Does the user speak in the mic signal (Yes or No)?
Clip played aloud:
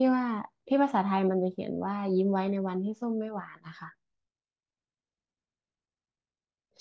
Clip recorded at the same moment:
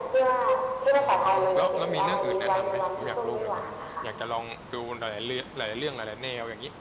Yes